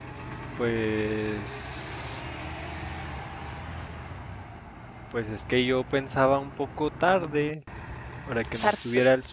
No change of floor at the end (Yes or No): Yes